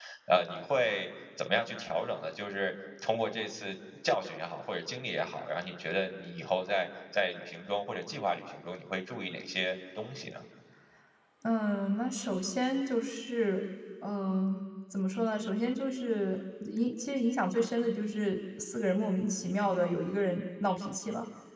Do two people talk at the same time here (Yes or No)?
No